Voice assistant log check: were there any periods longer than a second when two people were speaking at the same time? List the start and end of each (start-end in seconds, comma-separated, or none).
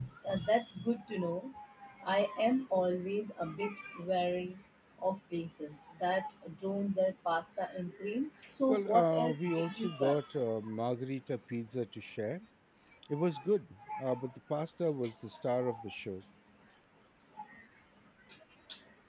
8.7-10.2